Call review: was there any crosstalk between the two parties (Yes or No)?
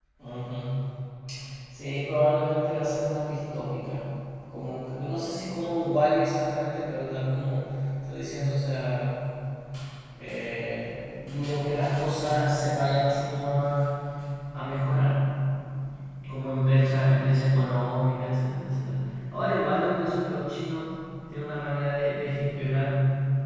No